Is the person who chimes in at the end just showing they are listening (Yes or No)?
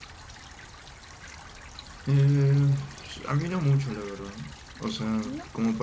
Yes